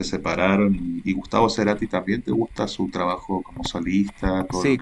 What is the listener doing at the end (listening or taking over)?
taking over